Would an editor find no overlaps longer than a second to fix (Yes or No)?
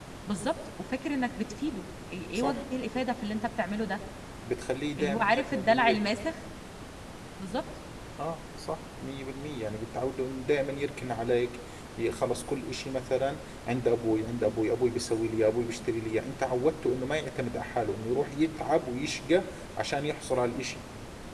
No